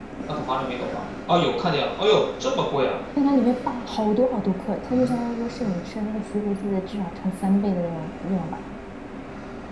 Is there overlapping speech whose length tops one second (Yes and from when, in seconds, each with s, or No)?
No